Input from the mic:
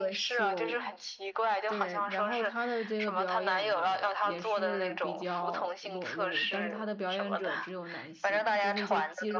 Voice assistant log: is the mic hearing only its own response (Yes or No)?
No